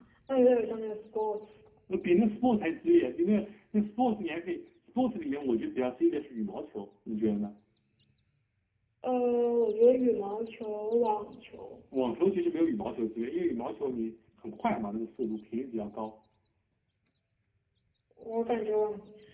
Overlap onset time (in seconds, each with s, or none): none